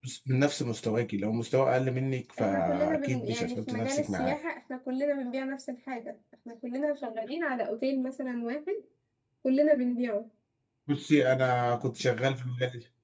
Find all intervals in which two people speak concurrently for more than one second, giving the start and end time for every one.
2.4-4.4

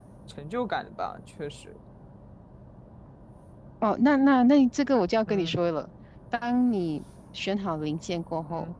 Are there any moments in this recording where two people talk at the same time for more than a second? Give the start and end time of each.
none

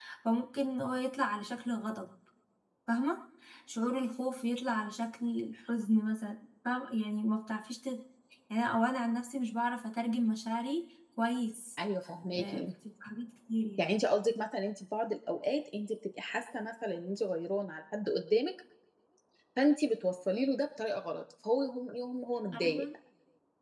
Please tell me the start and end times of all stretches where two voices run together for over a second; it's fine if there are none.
none

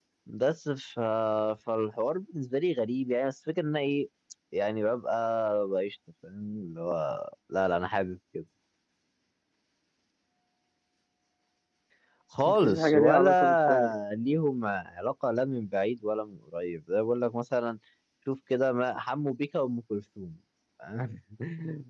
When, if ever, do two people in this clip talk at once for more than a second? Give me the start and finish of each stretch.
12.5-13.9

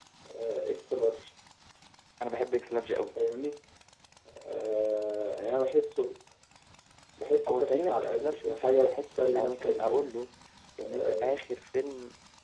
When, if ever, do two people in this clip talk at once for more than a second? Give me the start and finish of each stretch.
7.5-10.1

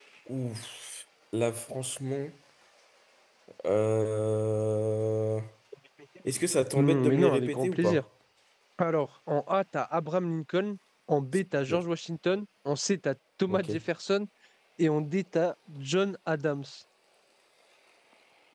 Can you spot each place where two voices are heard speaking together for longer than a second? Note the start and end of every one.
6.8-8.0

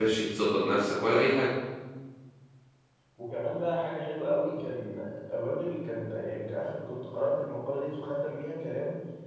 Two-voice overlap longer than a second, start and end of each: none

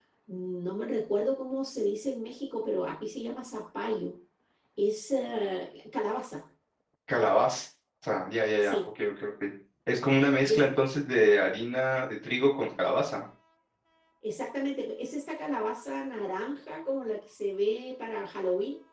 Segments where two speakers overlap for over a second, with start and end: none

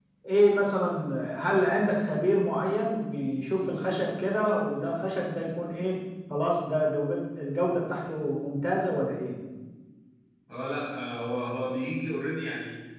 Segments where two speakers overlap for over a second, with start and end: none

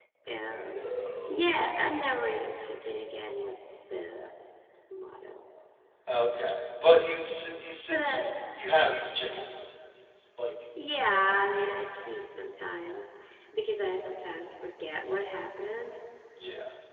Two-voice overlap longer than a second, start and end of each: none

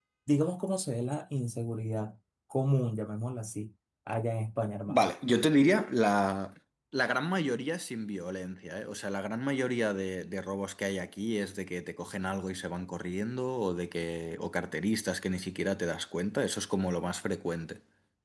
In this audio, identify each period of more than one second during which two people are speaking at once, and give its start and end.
none

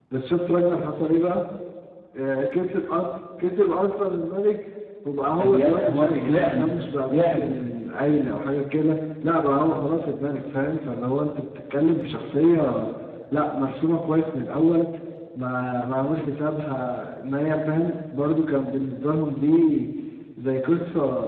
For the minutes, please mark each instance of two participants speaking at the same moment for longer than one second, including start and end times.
5.4-6.7

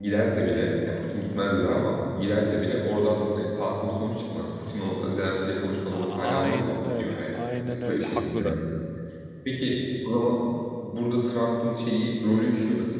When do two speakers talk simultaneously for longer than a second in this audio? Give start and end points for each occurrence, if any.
5.9-8.6

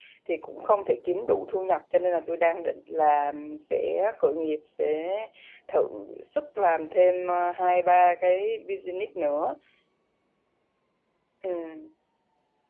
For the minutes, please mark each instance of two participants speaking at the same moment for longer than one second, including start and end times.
none

